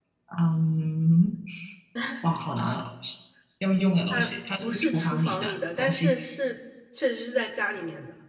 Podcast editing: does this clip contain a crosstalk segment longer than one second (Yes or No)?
Yes